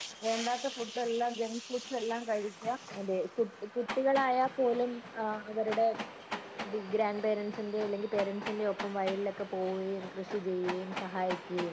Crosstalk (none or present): none